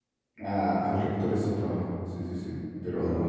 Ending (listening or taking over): taking over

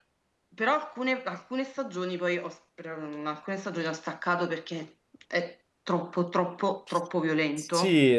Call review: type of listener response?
taking over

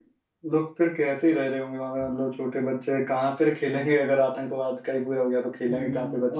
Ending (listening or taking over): taking over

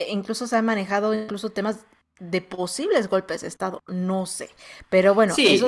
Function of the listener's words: taking over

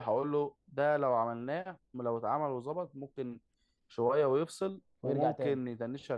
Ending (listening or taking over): listening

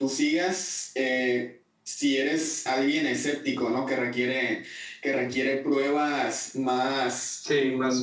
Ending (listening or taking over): taking over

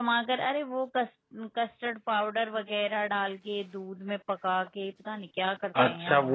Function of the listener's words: taking over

